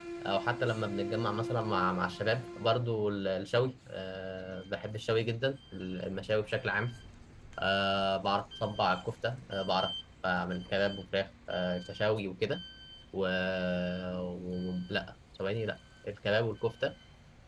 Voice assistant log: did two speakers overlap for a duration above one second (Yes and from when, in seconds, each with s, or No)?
No